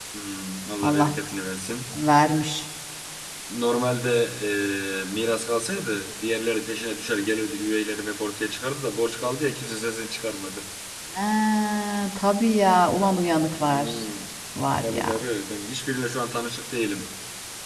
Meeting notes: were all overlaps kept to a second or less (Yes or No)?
Yes